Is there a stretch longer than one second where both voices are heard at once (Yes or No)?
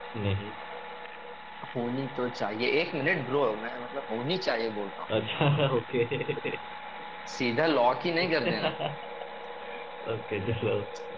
No